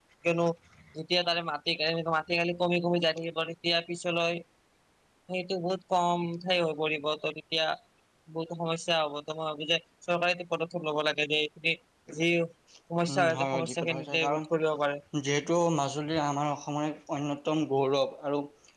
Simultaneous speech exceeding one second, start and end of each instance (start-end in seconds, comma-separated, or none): 13.1-14.5